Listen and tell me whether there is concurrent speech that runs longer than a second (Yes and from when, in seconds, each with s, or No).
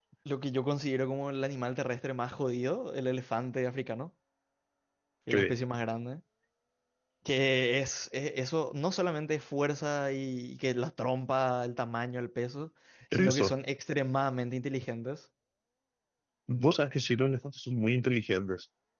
No